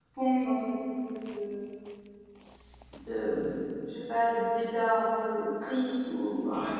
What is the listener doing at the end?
listening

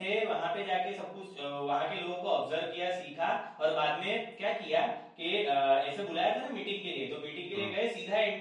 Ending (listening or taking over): listening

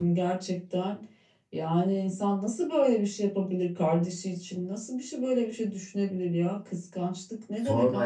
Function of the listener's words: taking over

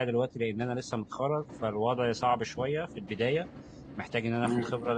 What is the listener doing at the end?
listening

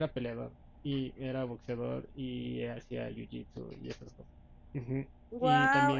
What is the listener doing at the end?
listening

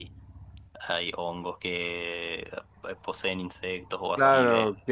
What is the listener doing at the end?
taking over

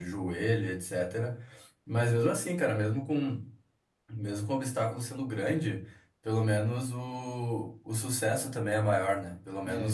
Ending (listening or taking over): listening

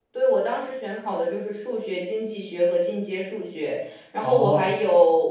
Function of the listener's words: listening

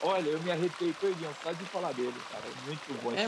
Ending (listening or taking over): taking over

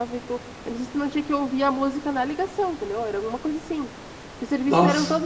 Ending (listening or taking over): listening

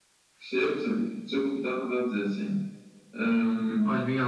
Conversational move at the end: taking over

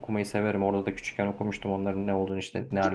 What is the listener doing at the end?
taking over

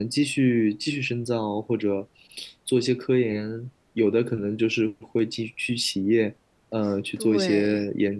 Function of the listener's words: listening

